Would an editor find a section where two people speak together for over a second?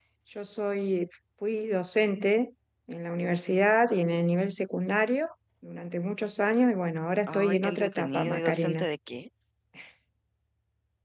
Yes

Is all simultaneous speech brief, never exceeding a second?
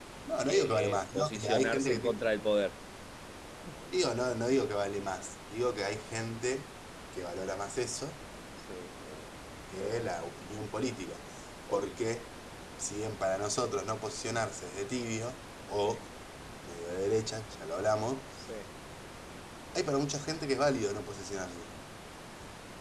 No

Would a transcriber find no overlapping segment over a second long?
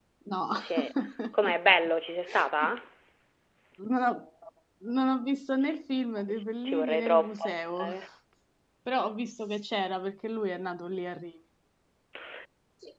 No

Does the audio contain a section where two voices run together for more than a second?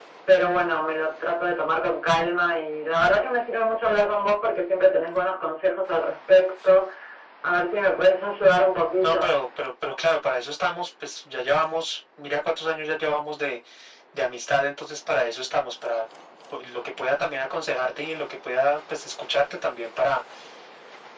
No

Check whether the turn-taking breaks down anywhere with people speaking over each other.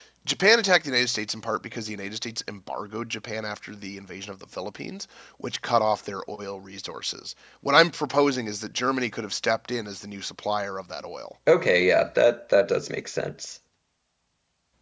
No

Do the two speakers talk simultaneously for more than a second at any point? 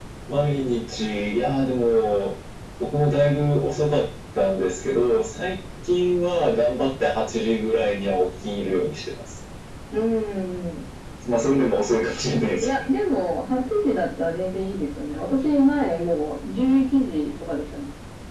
No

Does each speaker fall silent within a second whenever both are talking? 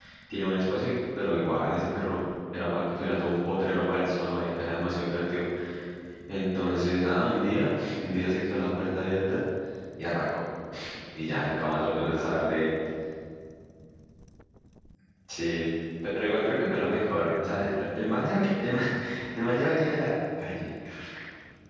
No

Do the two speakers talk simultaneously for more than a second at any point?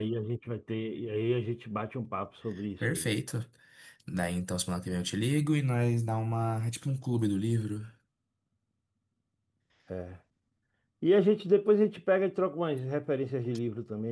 No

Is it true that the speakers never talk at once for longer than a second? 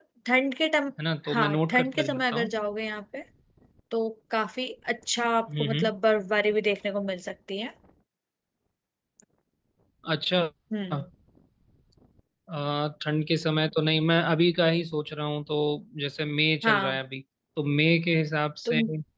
No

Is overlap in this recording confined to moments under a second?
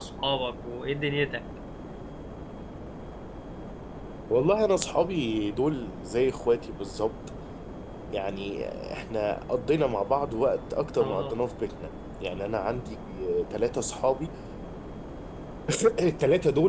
Yes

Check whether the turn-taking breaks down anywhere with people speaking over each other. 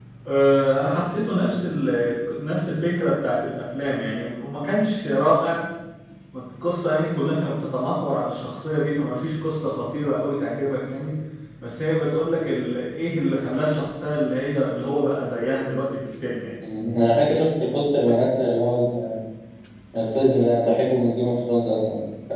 No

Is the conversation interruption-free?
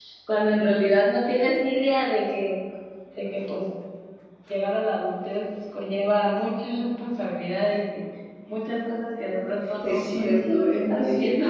No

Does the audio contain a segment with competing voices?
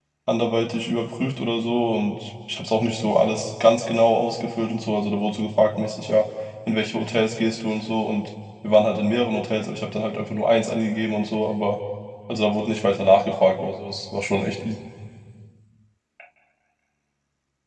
No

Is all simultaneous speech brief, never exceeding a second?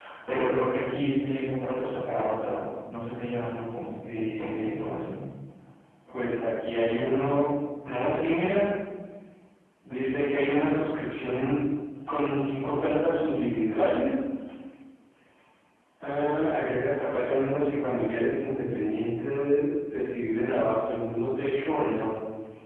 No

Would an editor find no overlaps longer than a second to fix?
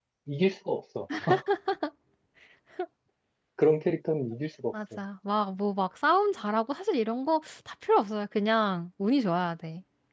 Yes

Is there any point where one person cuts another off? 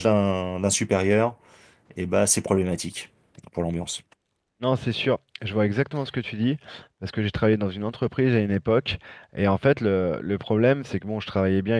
No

